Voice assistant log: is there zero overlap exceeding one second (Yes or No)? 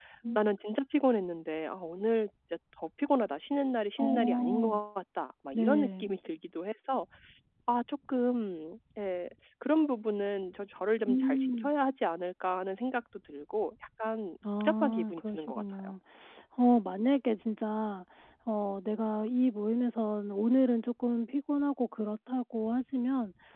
No